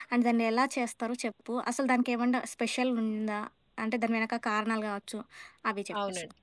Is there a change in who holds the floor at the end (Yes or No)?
Yes